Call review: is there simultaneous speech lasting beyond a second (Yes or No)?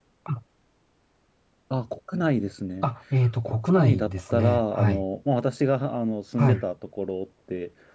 Yes